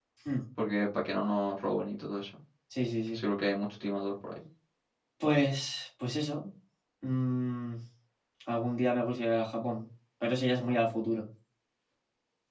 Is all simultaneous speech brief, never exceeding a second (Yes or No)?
Yes